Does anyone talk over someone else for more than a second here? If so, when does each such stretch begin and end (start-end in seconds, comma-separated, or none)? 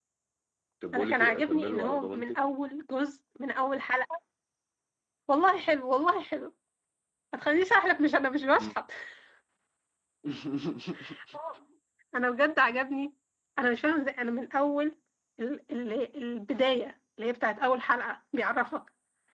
0.9-2.4